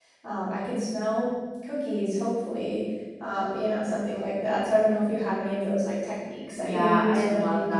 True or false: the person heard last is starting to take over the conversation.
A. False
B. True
B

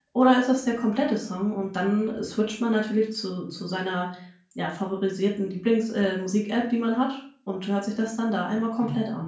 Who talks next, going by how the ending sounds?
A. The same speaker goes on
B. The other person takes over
B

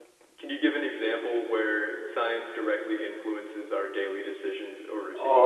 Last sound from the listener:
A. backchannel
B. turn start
B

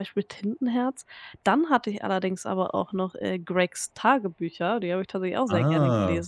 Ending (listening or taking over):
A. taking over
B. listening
A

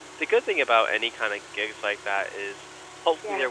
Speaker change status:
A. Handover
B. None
B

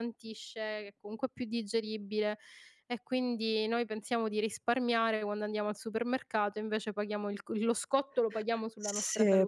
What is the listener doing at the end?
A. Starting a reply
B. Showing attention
A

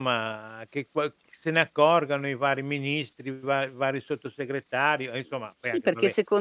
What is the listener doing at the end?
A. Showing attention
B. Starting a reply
B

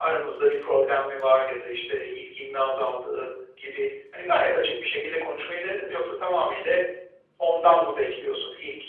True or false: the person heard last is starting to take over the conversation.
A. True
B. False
B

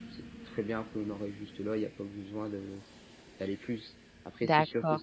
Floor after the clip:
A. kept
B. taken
B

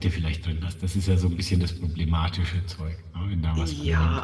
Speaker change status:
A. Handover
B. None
A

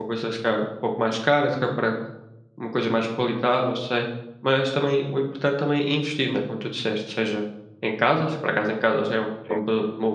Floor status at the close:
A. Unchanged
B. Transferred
A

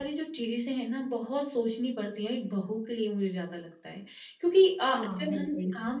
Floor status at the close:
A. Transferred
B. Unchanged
B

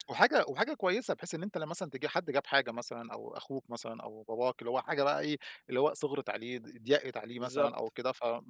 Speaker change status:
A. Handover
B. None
B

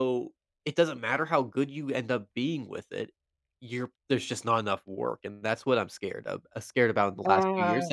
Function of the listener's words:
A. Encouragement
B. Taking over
A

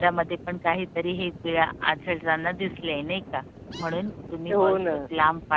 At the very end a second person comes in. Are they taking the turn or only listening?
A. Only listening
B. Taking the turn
A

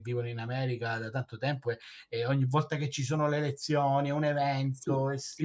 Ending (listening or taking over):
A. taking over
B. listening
A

